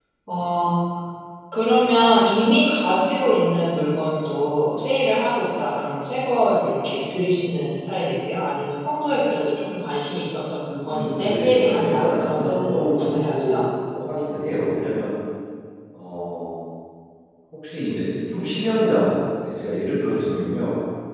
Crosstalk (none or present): present